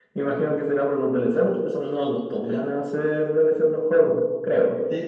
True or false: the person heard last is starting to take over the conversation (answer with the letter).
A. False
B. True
B